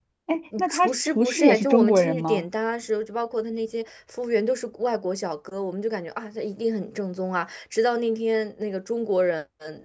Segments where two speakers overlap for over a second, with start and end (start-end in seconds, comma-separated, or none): 0.7-2.4